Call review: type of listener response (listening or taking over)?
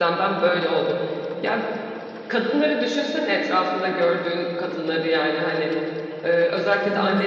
listening